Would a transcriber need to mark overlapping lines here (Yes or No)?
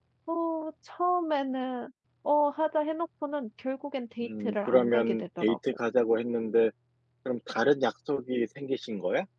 Yes